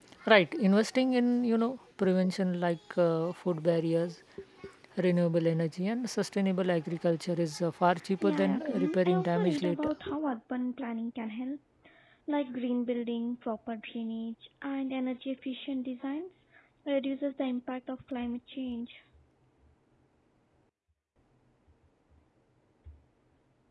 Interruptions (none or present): present